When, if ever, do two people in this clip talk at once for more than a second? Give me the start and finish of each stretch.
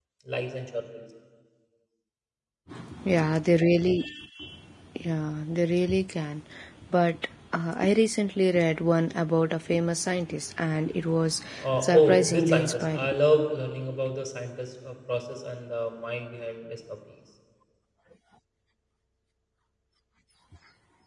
11.8-13.1

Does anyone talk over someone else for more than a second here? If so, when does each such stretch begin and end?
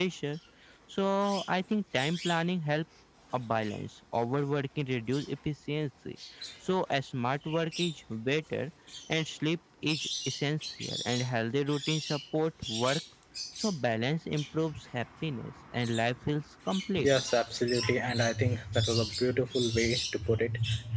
none

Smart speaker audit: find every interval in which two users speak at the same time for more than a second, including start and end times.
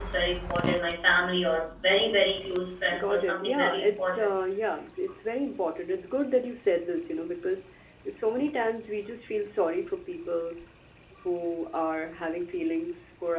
3.0-4.3

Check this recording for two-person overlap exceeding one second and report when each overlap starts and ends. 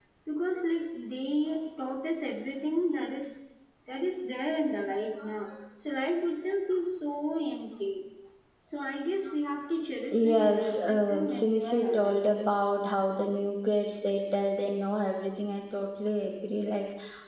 10.1-12.4

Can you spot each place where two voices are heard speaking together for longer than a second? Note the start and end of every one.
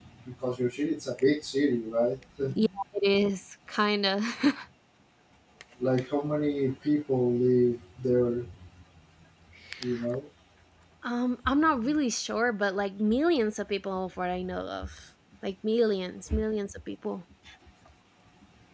none

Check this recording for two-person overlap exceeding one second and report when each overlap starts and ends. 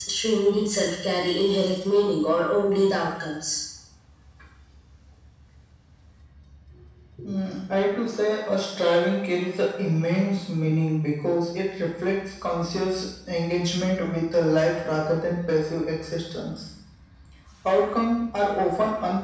none

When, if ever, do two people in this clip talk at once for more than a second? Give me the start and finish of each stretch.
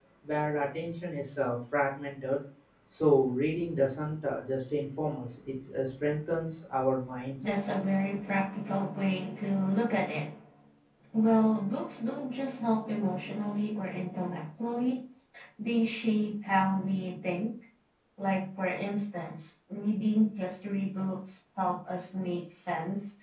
none

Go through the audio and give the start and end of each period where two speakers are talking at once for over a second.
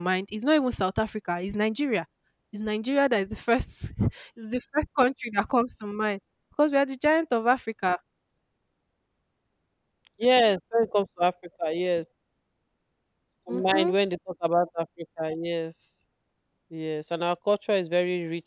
none

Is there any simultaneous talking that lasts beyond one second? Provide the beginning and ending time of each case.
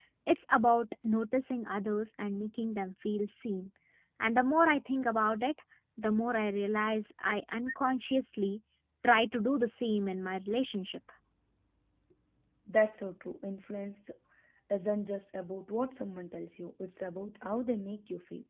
none

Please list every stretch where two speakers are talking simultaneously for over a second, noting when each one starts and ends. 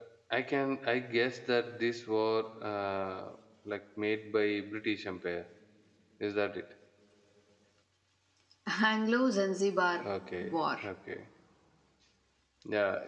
none

